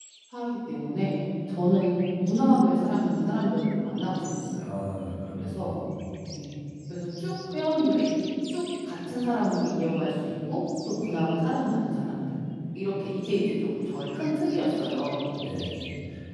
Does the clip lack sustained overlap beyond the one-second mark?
Yes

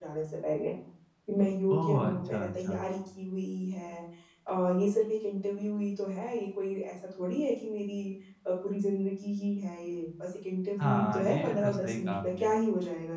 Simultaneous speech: Yes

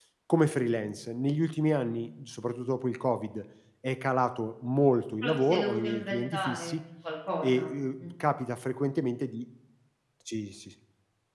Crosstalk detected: Yes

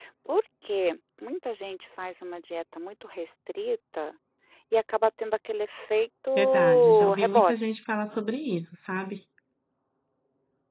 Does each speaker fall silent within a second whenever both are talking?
No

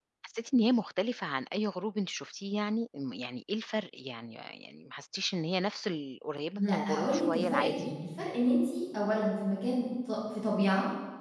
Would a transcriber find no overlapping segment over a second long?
No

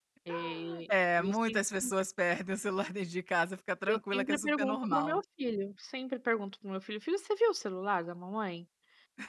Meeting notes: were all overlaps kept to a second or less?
No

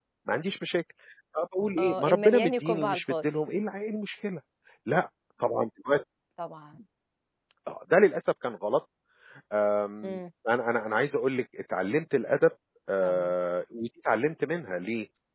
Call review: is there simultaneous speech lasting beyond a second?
Yes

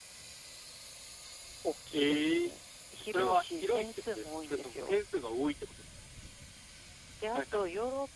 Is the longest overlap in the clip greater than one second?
Yes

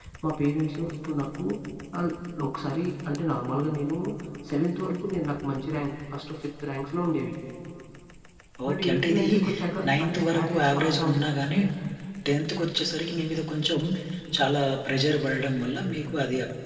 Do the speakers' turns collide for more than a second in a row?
Yes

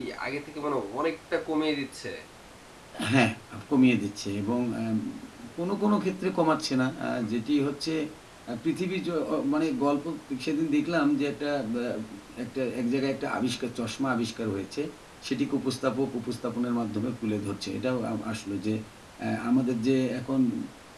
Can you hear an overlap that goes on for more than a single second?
No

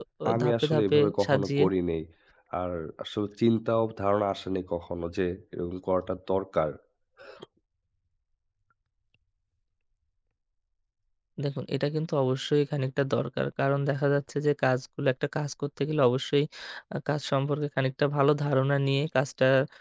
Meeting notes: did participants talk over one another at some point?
Yes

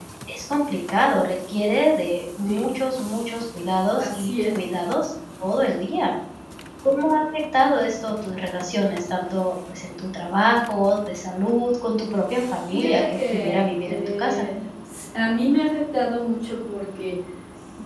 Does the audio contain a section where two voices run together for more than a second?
Yes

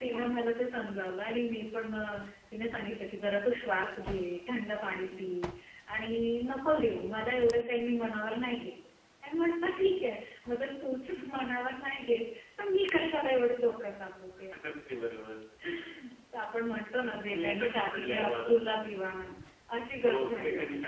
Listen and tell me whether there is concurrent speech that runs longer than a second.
Yes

